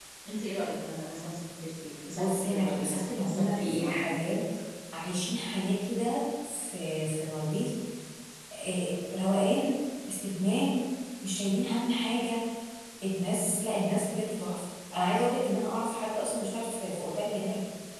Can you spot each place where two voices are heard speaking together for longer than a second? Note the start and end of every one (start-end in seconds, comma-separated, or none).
2.1-4.1